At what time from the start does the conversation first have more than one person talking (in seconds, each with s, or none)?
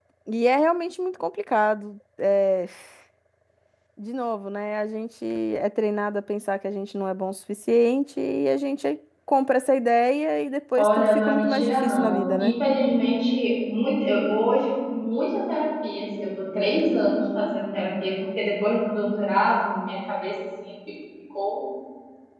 10.8 s